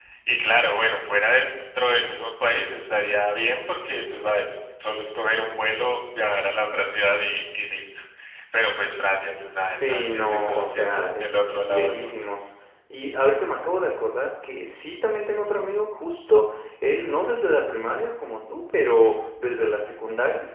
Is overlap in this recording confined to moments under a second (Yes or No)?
No